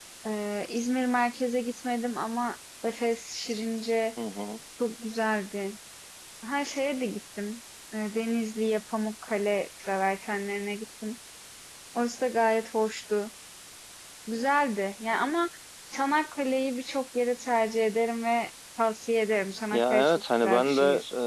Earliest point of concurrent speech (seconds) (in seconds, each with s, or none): 19.7 s